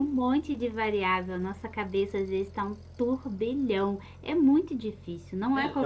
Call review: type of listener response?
taking over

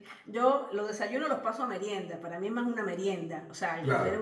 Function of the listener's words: listening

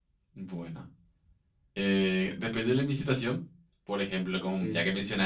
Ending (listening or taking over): listening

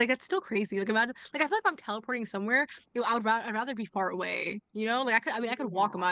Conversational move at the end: listening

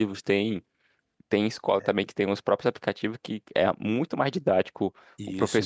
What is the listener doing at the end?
listening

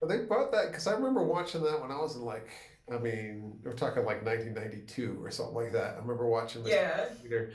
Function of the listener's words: listening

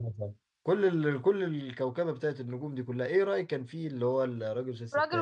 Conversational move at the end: taking over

